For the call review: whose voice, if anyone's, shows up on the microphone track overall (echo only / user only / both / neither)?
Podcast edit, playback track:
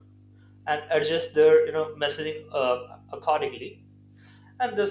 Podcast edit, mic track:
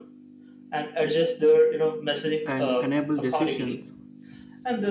both